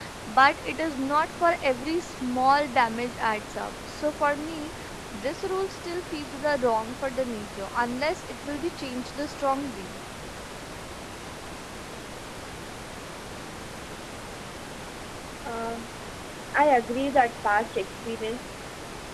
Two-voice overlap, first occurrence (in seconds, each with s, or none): none